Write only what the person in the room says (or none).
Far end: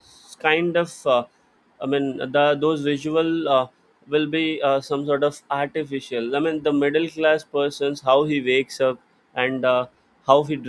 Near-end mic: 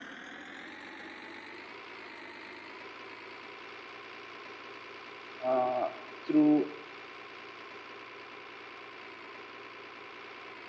uh, through